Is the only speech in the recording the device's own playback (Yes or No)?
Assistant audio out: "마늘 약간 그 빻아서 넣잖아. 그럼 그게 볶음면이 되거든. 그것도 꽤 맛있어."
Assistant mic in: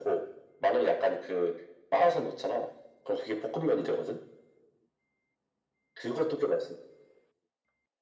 Yes